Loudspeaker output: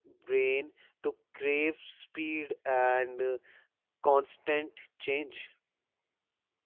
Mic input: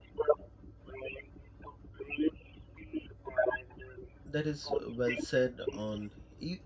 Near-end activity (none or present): present